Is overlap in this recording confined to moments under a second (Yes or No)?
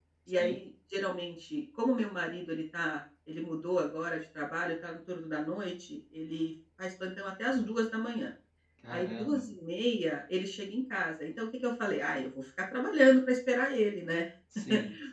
Yes